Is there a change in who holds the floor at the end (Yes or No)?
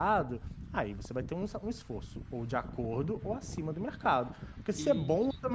No